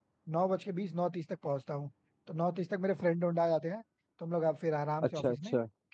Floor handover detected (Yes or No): No